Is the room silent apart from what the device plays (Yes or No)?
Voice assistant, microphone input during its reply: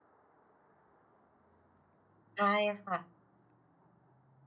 No